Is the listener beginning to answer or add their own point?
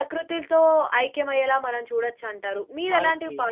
No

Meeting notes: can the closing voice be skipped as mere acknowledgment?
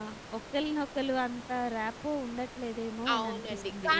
No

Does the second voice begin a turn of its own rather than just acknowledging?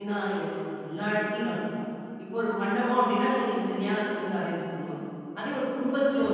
No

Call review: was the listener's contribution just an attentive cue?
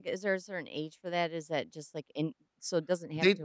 No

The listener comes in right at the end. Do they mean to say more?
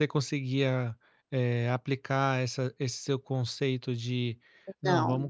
No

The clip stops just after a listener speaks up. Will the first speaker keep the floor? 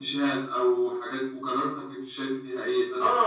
No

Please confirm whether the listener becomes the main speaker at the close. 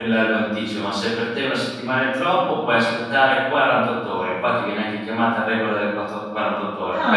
Yes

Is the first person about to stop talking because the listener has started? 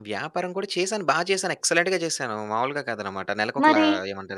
No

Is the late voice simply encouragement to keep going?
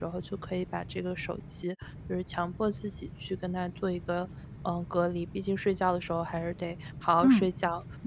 No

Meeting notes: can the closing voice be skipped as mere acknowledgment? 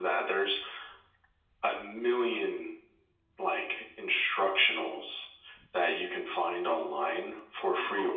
Yes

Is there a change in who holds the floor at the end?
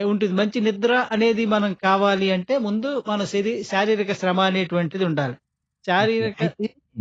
Yes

